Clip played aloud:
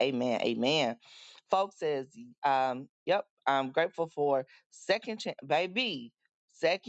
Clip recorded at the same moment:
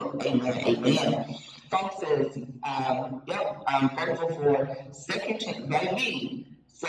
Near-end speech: none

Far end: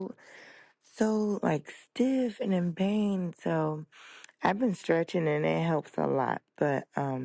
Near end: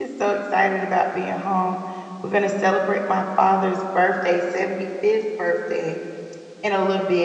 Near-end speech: present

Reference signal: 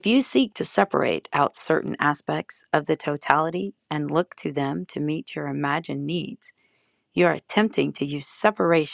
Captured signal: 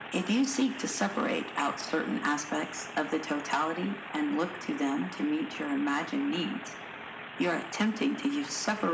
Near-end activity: none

